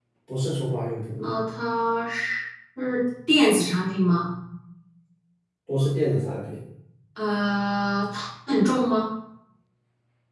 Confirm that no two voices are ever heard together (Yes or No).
Yes